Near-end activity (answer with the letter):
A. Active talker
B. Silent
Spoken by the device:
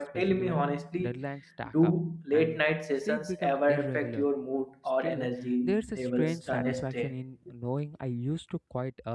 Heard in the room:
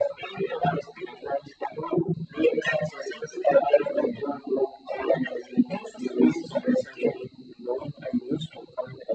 B